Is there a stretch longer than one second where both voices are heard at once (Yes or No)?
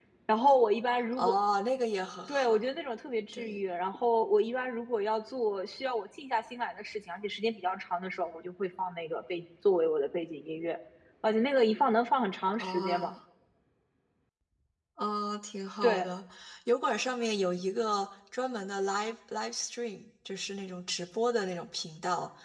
No